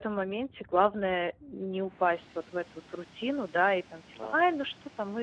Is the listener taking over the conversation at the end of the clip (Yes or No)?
No